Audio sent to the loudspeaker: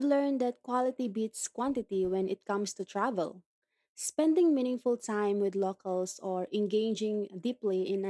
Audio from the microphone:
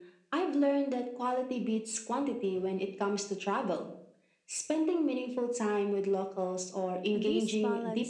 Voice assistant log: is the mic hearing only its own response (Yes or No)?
No